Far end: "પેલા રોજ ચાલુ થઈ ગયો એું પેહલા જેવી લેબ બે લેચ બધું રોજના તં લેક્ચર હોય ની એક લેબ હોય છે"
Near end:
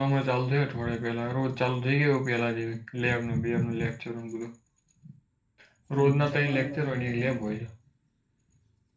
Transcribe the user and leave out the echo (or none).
પણ જમવાની મજા જાય એમ.